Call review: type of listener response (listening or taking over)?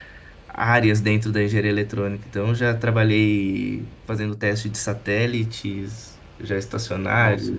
listening